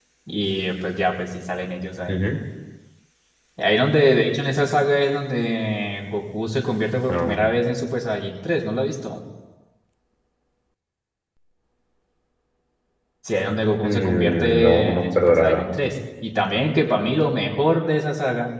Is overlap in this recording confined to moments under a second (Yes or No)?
No